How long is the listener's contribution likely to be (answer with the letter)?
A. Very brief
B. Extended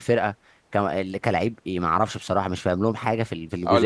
B